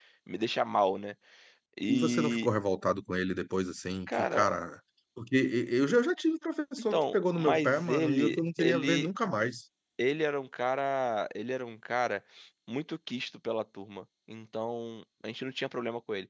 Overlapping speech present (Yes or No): Yes